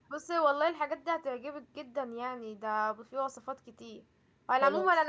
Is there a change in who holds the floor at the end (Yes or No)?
No